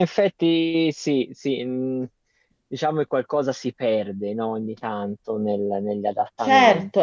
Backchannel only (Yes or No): No